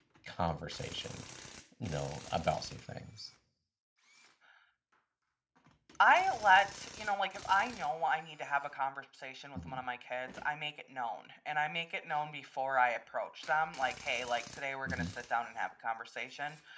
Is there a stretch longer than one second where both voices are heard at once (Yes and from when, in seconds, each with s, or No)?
No